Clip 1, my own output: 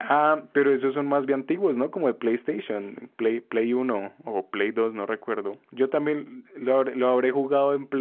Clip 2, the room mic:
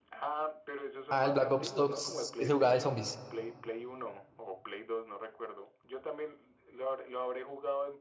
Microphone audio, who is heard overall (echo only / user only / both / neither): both